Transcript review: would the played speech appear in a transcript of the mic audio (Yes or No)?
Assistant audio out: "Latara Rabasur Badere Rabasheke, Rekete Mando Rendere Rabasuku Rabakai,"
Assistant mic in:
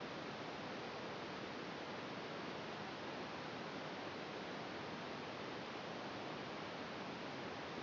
No